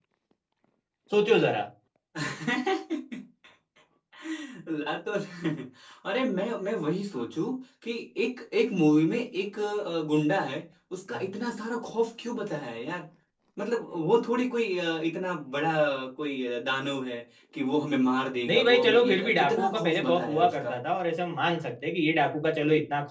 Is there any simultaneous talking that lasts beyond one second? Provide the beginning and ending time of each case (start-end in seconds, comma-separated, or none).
18.5-20.7